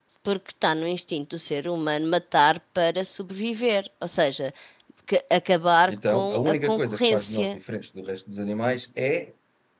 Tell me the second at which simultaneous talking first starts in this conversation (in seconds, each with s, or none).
5.9 s